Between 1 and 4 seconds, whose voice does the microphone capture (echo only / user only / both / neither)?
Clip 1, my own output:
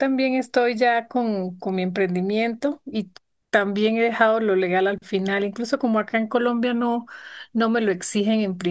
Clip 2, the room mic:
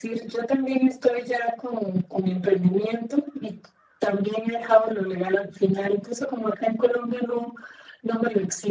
echo only